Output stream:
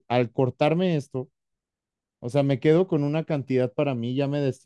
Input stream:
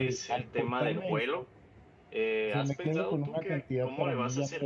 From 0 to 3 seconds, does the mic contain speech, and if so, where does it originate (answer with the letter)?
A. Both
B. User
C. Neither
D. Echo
A